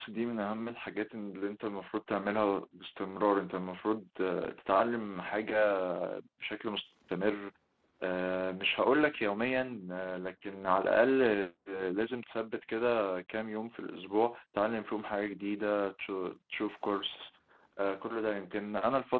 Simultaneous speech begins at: none

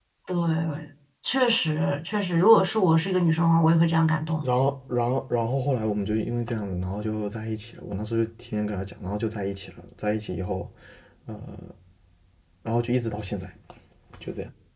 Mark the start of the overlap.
none

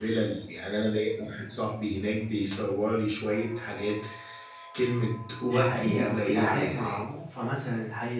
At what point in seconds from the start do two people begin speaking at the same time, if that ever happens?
5.4 s

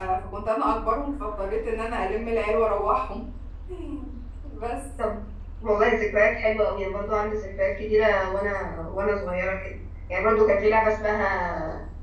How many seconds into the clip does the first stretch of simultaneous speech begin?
none

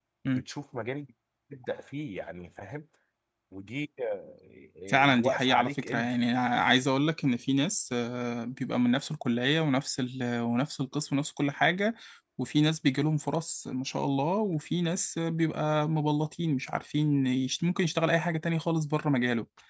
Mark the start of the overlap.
4.9 s

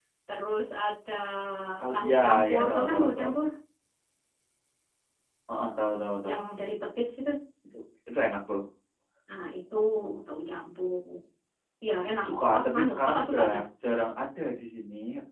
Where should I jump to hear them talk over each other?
1.9 s

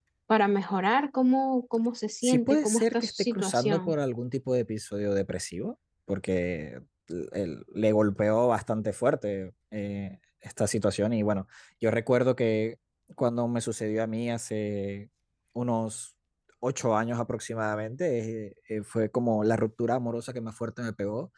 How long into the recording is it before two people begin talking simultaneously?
2.2 s

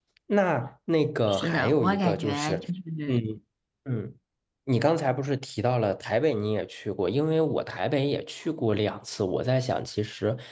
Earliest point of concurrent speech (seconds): 1.3 s

